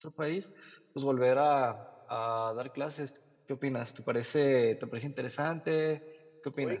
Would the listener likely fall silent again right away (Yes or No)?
No